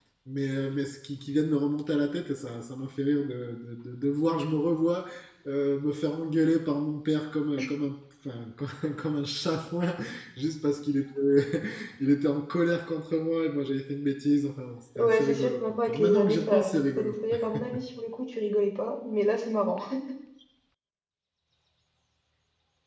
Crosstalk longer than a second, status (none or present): present